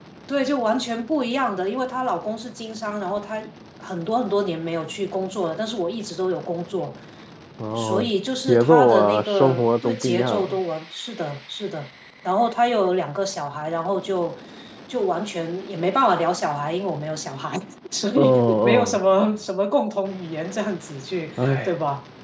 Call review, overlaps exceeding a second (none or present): present